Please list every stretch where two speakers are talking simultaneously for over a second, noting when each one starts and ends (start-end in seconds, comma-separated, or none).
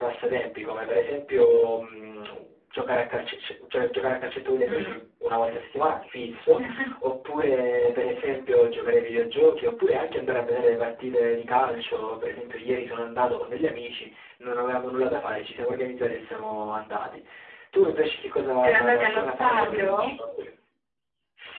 18.6-20.1